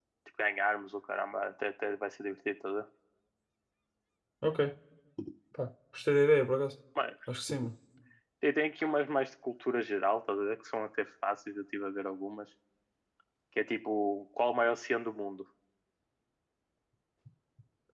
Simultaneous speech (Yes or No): No